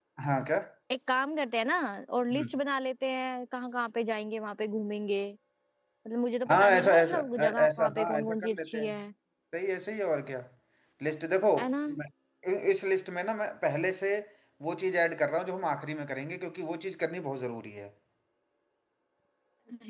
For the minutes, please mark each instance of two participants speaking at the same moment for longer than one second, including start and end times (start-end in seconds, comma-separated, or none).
6.5-8.9